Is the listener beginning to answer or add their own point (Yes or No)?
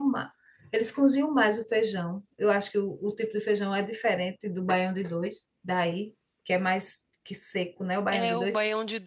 Yes